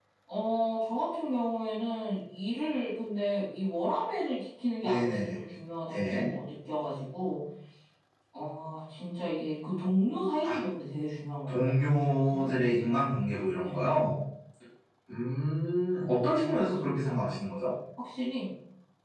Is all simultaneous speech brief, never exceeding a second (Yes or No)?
No